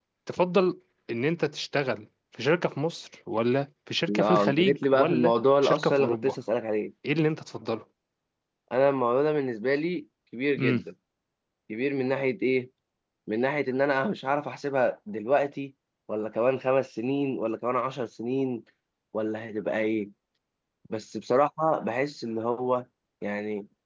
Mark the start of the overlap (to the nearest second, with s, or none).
4 s